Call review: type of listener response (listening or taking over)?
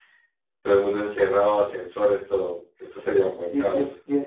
taking over